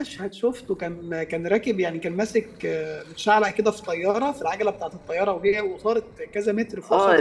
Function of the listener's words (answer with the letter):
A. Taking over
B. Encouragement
A